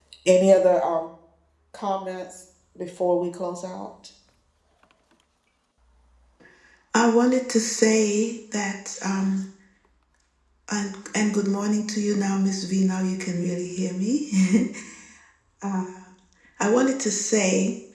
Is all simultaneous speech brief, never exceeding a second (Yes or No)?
Yes